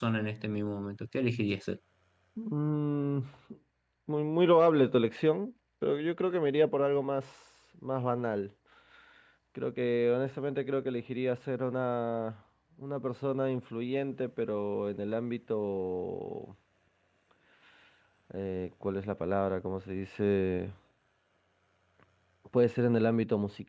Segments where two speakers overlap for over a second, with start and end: none

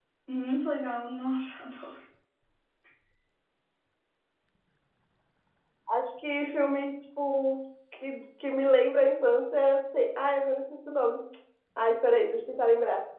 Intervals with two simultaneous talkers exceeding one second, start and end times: none

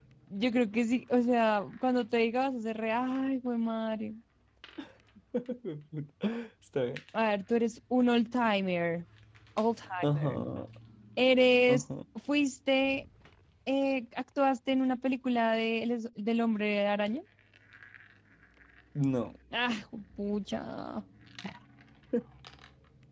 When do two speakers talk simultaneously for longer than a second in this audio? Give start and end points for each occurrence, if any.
none

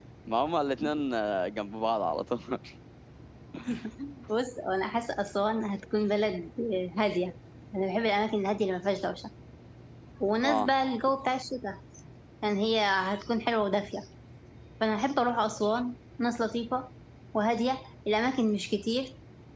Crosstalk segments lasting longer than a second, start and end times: none

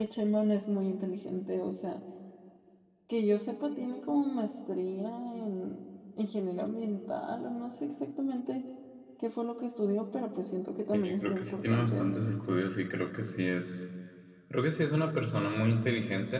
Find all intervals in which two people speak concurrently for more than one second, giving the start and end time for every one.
10.9-12.5

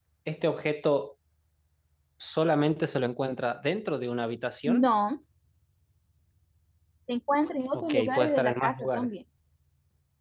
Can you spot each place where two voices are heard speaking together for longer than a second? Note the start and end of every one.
7.7-9.1

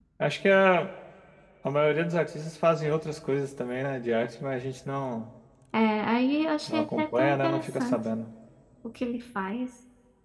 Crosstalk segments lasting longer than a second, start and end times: 6.7-8.0

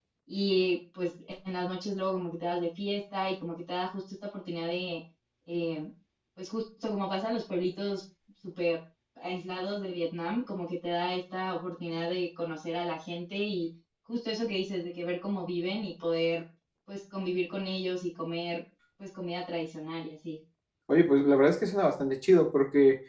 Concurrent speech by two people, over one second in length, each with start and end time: none

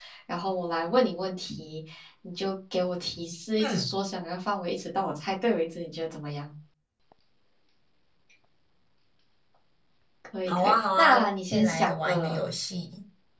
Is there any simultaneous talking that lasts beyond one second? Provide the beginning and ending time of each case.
10.5-12.4

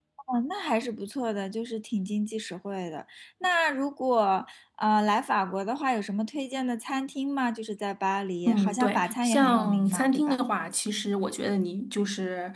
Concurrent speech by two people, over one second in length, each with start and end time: 8.5-10.3

